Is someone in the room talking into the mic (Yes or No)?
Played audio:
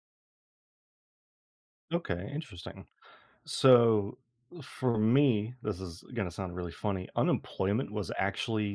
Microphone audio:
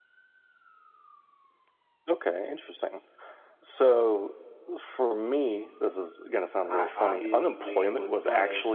Yes